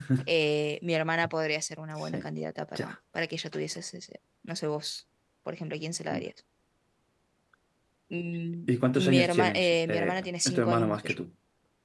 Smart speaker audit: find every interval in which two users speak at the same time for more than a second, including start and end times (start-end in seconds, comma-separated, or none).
8.7-11.2